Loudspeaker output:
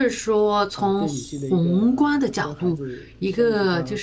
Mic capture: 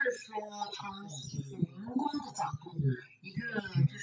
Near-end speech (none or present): none